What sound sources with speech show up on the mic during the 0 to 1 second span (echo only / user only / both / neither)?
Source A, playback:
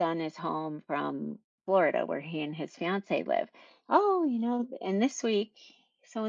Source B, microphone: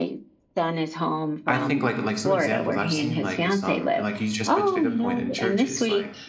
echo only